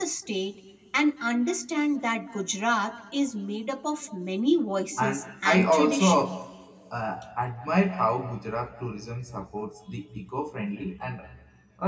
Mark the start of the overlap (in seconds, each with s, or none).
5.0 s